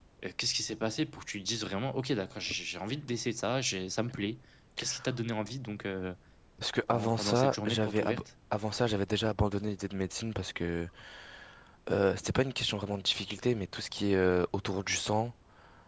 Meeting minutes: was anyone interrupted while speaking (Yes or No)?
Yes